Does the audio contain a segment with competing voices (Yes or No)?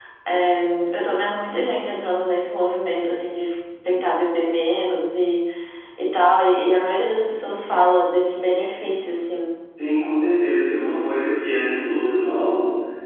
No